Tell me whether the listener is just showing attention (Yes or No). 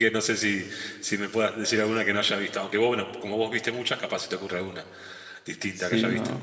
No